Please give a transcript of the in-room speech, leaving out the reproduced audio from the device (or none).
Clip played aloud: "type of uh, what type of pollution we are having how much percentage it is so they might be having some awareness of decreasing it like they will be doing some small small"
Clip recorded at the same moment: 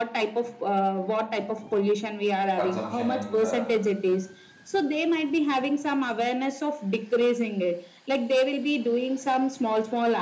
consumption and uh,